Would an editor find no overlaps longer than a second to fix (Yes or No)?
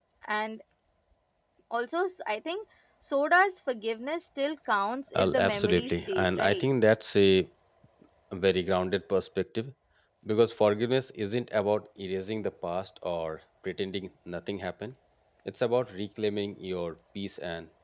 No